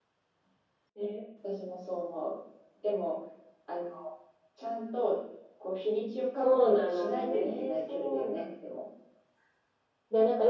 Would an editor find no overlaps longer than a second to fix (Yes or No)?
No